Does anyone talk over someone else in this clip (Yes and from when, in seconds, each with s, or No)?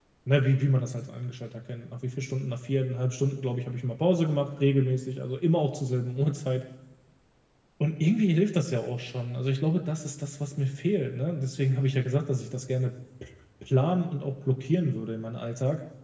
No